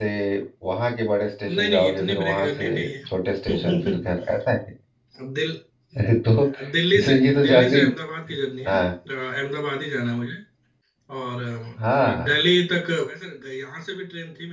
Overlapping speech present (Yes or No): Yes